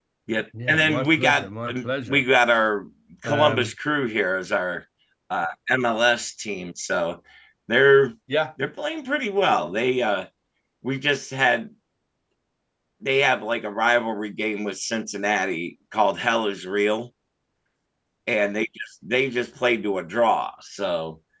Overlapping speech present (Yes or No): Yes